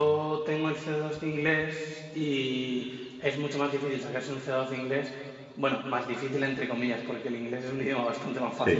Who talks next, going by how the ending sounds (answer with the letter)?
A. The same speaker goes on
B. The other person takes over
A